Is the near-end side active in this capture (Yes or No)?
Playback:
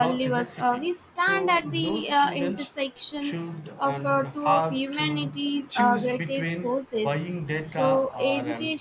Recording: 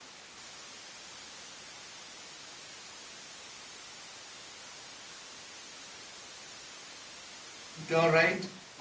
Yes